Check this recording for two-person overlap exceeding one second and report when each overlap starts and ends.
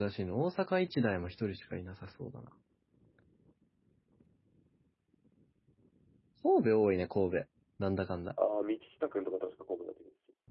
none

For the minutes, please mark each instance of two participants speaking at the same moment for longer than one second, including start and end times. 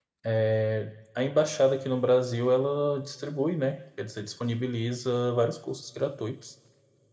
none

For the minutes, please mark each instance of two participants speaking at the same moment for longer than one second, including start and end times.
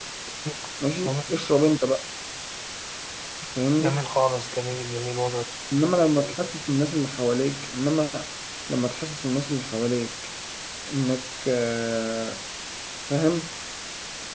none

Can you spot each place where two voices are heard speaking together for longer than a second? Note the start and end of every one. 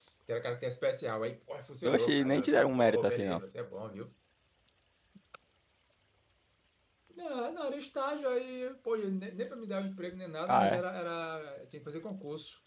1.8-3.4

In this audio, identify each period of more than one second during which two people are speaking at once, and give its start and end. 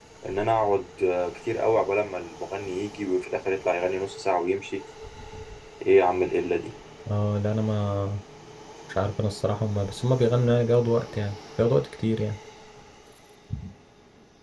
none

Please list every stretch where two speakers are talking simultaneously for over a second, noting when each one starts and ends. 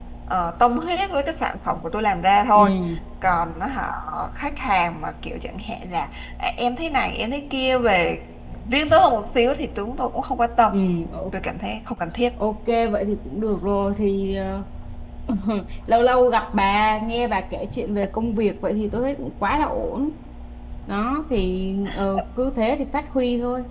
none

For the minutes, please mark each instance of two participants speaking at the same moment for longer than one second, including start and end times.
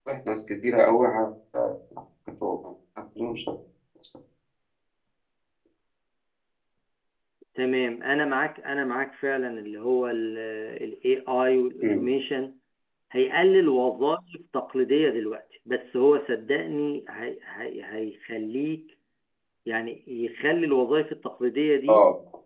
none

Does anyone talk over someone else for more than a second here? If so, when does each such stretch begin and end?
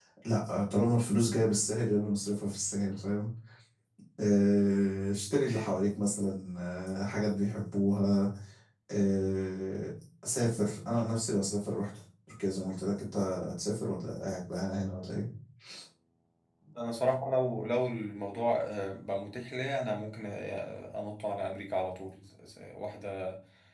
none

